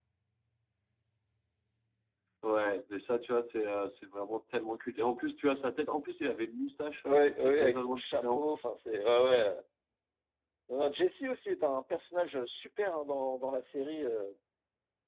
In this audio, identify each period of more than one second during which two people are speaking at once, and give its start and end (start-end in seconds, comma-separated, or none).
7.0-8.4